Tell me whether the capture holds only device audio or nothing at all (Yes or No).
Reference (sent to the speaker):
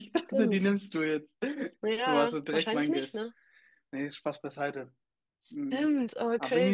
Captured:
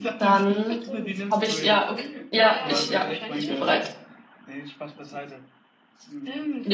No